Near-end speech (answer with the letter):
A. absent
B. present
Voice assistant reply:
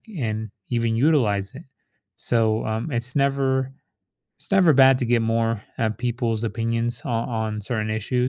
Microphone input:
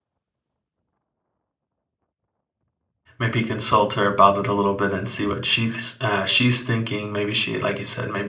B